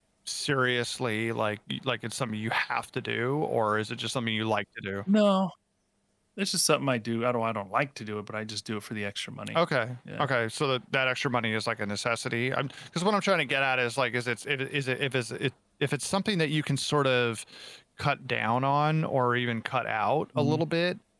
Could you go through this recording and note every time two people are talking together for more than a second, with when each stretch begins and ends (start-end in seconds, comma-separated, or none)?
none